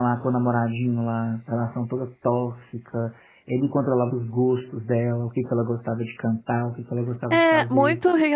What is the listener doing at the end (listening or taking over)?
taking over